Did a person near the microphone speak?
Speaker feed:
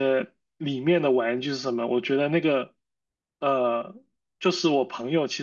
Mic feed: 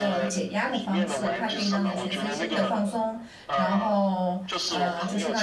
Yes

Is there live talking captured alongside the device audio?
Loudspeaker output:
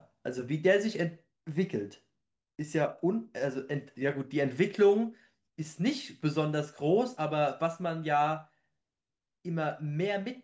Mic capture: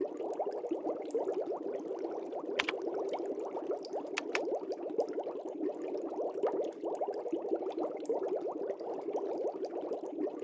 No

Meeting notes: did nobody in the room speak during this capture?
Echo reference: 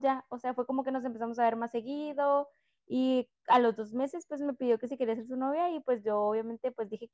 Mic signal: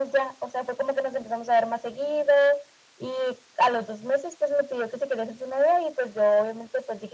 Yes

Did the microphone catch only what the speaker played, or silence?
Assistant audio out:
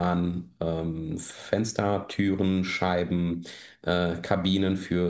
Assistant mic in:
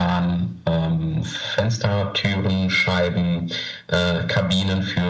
Yes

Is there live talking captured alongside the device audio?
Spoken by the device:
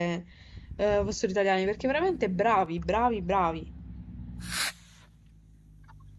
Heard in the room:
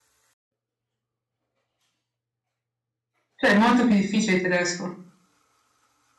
Yes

